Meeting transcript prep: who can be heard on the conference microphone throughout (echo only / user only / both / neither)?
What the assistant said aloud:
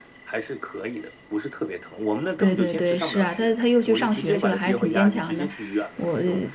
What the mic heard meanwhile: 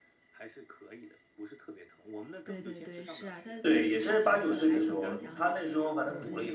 both